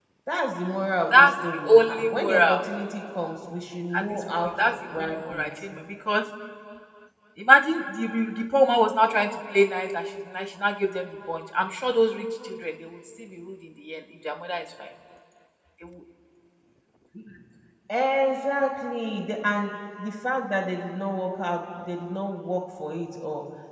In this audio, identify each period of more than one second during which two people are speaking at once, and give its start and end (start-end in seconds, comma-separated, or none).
1.1-2.6, 4.0-5.5